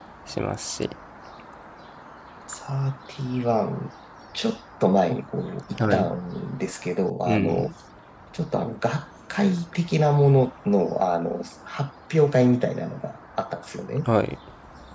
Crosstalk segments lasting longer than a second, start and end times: none

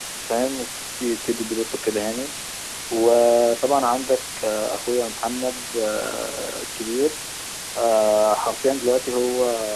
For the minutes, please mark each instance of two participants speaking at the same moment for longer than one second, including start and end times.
none

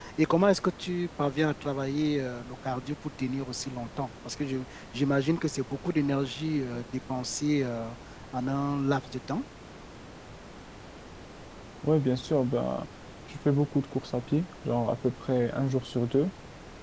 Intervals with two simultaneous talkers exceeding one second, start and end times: none

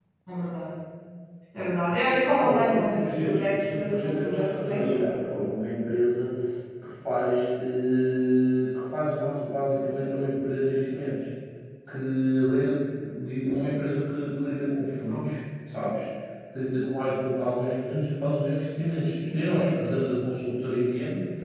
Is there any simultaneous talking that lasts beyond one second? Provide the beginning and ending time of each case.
2.4-4.9

